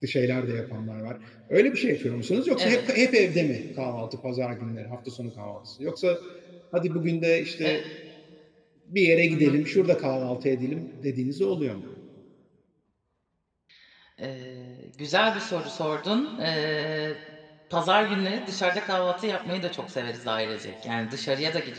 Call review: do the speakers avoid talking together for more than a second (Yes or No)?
Yes